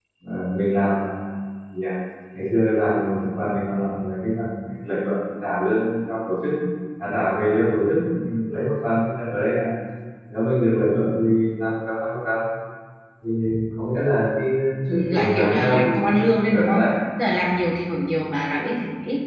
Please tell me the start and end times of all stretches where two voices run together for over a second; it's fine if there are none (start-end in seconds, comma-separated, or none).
15.1-16.9